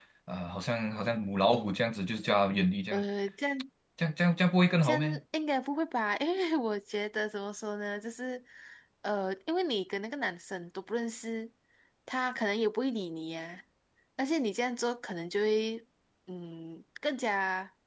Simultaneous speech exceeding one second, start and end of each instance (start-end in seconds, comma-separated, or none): none